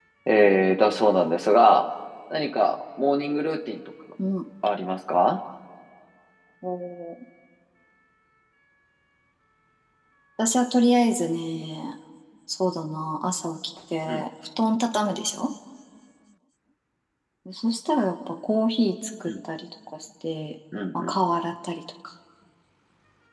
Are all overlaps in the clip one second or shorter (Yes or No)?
Yes